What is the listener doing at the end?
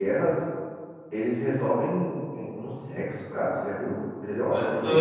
taking over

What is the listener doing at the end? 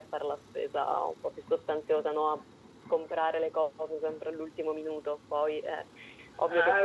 taking over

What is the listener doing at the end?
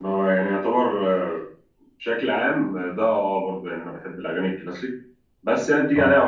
listening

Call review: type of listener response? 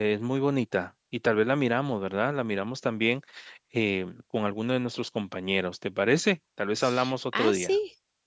taking over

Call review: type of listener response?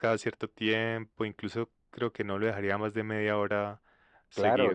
taking over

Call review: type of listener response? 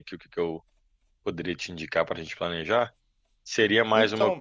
listening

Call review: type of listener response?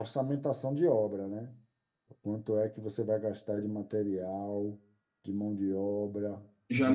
taking over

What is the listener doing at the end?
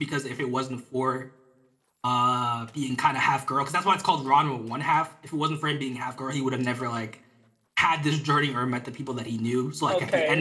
taking over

